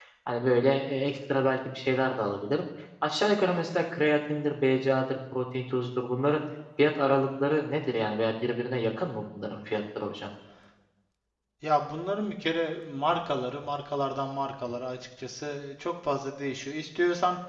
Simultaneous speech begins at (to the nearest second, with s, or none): none